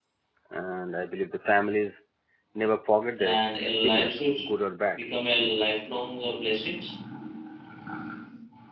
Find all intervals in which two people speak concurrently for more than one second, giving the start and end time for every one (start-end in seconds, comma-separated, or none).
3.2-4.4